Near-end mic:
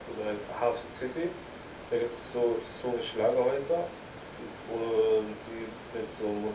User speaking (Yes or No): No